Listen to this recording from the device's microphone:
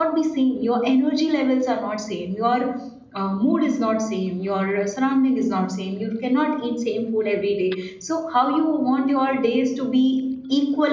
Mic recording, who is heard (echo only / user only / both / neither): user only